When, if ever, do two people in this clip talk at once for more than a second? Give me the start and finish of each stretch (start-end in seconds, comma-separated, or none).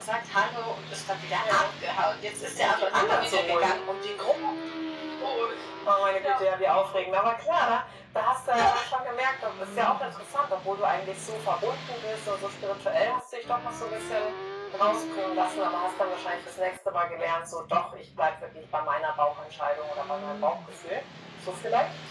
2.6-3.8